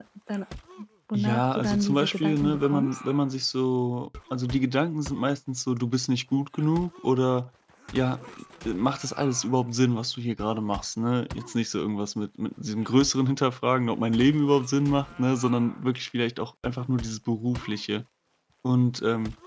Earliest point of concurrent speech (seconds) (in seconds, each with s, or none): 1.1 s